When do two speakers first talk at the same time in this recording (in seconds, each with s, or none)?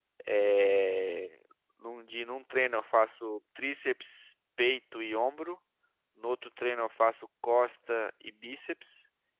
none